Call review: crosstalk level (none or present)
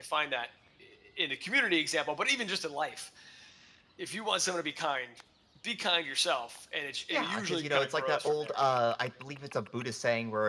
present